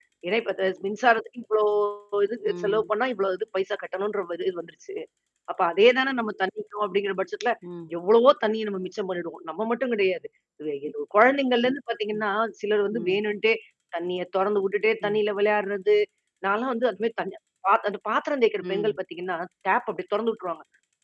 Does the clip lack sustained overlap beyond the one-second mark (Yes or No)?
Yes